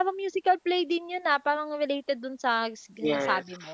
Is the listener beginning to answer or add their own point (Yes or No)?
Yes